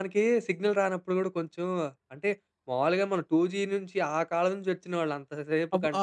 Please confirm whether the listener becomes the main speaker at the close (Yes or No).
No